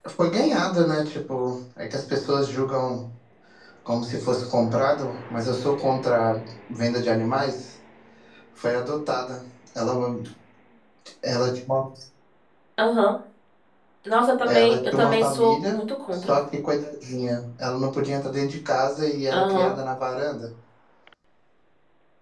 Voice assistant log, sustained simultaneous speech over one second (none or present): present